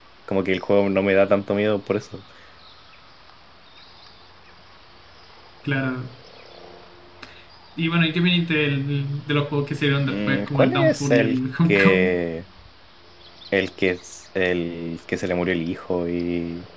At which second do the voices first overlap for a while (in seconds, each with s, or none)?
10.1 s